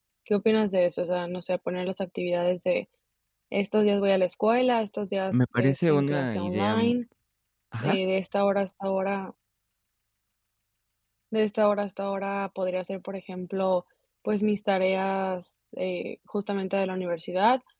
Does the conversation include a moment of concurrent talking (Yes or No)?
Yes